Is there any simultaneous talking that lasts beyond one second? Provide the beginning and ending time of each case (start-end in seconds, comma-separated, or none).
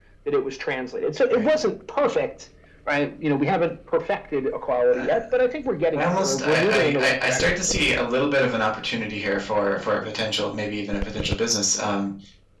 6.0-7.5